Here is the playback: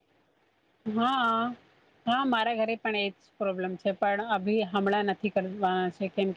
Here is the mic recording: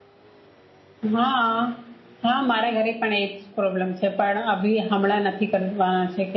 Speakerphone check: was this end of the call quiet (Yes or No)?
Yes